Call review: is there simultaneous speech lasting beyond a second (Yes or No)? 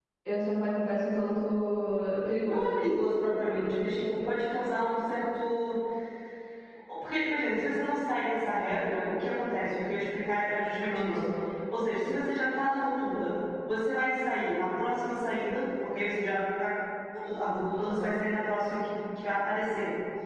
No